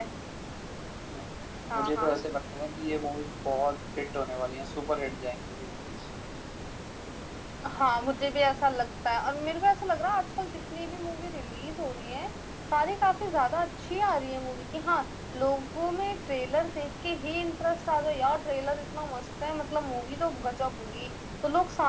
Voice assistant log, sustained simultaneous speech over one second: none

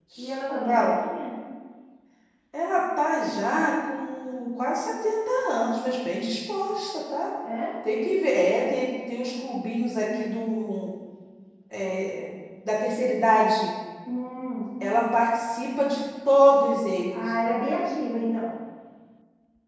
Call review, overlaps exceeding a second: none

